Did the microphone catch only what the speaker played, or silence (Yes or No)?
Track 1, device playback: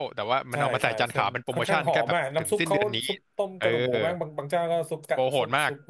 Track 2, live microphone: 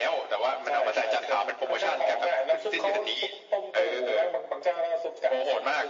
Yes